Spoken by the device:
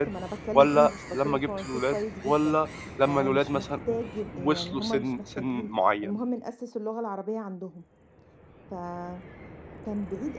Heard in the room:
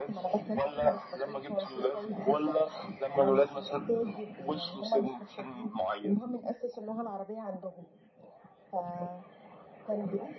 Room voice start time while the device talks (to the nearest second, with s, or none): none